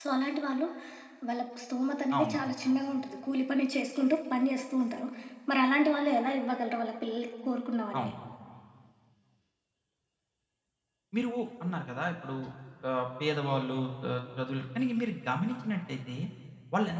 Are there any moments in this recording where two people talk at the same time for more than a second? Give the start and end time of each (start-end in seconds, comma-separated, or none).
none